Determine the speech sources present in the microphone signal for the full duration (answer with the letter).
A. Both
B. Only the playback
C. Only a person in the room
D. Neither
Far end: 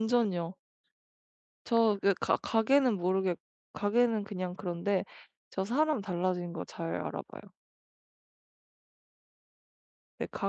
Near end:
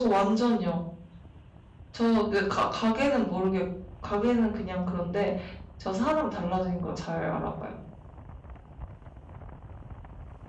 B